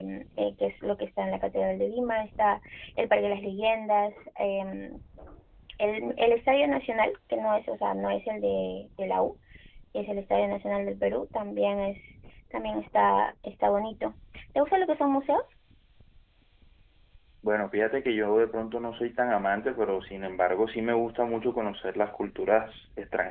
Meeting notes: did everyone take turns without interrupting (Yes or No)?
Yes